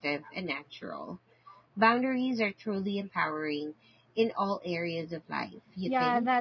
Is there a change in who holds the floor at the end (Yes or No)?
Yes